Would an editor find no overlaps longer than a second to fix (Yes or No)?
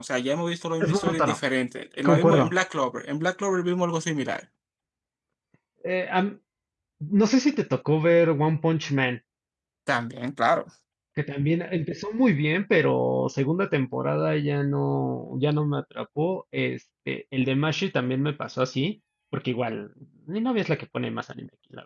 Yes